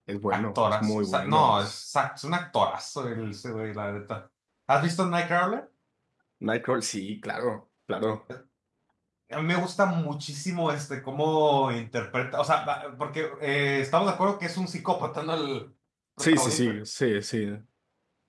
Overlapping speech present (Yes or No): Yes